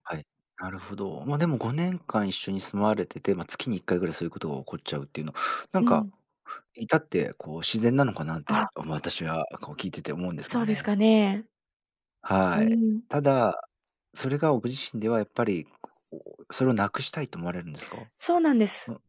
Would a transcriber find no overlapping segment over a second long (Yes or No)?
Yes